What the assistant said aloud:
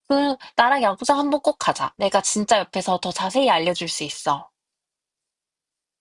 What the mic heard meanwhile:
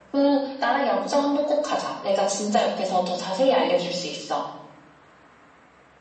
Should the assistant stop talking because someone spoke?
No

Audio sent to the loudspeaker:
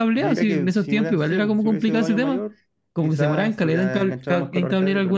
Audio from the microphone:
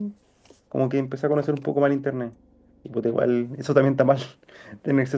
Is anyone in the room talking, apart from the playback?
Yes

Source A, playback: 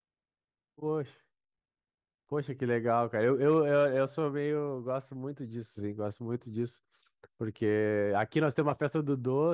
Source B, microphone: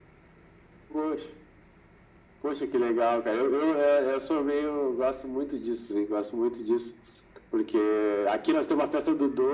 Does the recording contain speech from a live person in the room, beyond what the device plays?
No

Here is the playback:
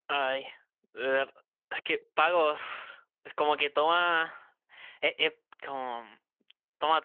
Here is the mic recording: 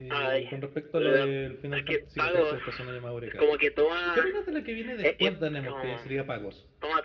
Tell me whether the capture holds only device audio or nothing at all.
No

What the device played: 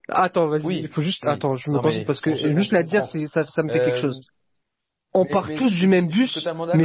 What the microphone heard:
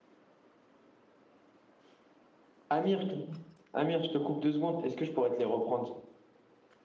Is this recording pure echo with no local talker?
No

